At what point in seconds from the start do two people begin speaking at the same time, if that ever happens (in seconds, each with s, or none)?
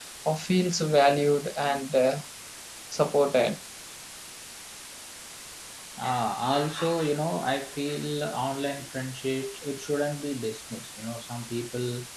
none